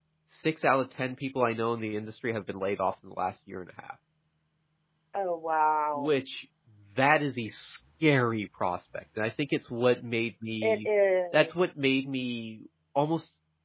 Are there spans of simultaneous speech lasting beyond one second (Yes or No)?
No